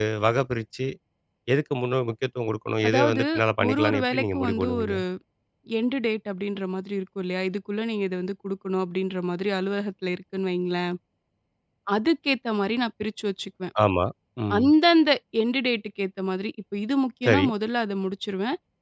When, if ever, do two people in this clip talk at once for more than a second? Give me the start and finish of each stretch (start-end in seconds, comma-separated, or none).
3.7-5.0